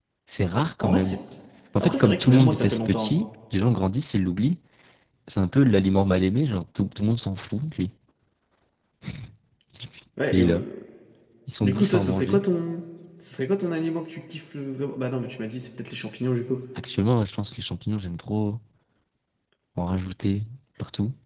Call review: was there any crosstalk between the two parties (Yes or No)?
Yes